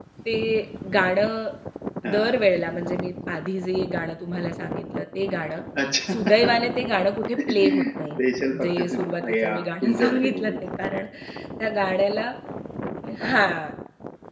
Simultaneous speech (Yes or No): Yes